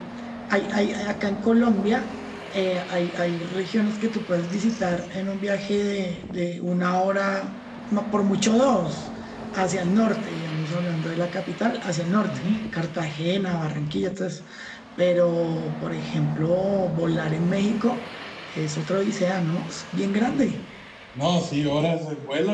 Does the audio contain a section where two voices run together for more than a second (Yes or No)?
No